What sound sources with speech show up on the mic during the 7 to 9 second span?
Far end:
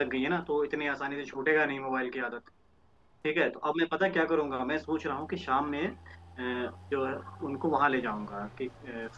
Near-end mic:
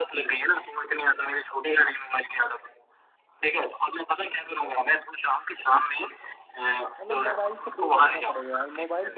both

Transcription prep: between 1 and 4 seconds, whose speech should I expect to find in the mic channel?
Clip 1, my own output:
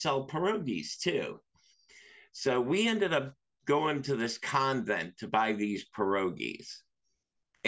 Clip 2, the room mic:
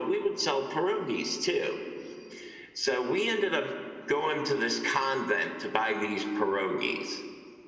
echo only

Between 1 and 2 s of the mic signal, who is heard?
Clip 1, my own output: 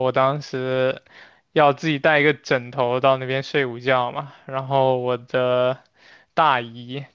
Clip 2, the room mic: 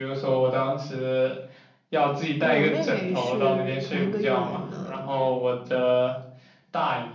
echo only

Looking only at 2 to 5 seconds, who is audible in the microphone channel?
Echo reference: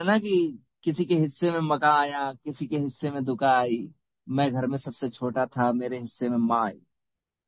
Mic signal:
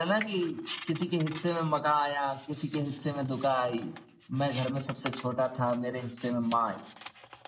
echo only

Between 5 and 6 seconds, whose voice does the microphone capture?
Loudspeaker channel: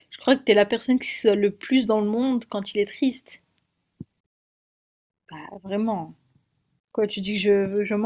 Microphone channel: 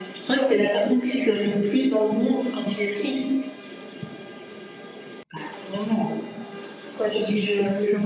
echo only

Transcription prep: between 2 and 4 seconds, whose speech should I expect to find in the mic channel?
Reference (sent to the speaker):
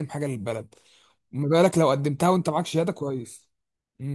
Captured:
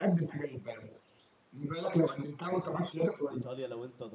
both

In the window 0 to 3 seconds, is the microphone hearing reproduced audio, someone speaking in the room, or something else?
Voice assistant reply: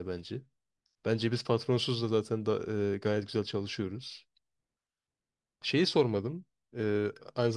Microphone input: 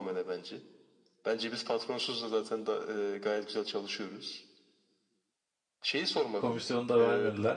echo only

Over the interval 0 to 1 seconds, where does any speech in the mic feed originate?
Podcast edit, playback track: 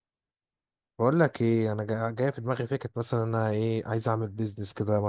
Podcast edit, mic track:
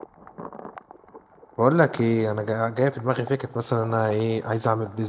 neither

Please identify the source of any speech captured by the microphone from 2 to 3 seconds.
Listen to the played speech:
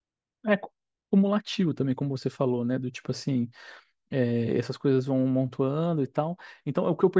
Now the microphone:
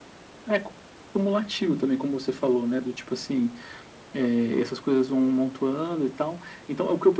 echo only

